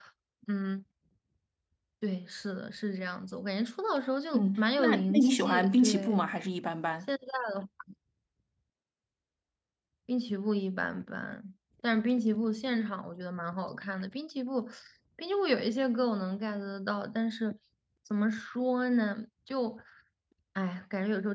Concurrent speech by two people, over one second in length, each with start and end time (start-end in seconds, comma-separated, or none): 4.3-6.2